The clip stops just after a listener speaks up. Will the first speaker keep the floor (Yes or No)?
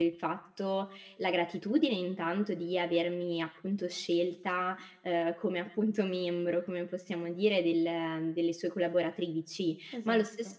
Yes